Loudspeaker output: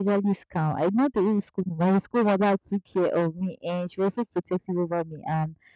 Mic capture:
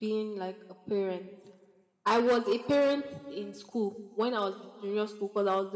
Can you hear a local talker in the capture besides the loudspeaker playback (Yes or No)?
Yes